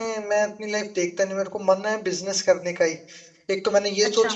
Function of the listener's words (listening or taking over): listening